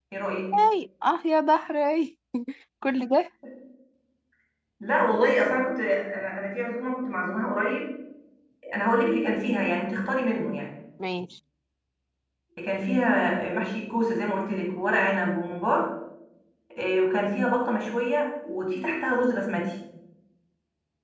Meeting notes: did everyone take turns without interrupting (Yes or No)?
Yes